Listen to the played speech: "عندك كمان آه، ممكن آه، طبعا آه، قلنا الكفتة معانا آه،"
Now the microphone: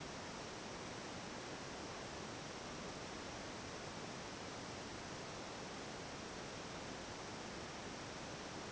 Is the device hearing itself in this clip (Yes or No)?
No